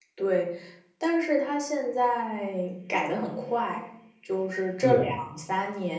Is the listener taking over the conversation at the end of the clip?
No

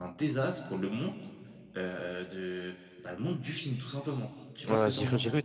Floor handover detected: Yes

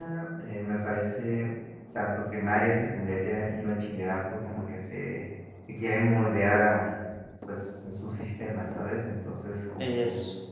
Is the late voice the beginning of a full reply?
No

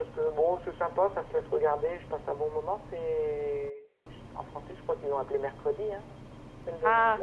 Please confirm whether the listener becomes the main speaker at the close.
Yes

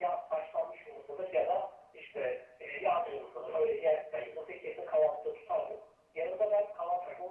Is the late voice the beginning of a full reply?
No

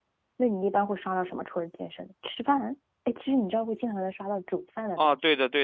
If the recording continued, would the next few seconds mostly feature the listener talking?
Yes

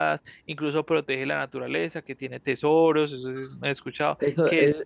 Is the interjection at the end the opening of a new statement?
Yes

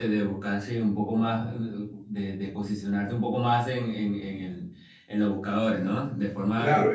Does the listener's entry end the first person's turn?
Yes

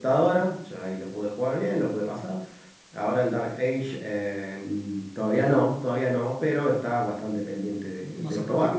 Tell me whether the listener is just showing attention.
No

